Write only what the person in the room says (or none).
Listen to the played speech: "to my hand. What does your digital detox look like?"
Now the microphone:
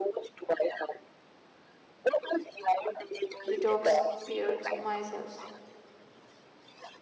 detox periods myself.